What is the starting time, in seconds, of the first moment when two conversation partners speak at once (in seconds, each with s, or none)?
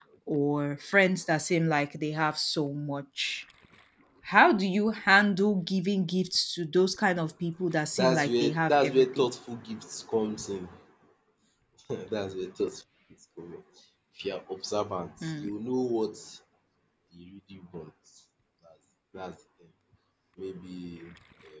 8.0 s